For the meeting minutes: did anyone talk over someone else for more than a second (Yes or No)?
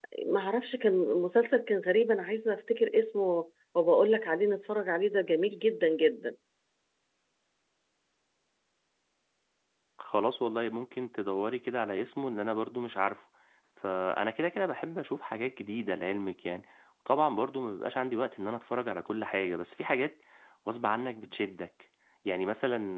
No